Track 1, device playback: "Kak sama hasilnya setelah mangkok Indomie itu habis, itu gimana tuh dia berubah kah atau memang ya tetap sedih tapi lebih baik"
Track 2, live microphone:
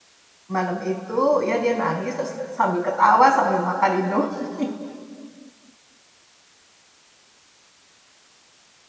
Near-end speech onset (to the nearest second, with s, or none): 1 s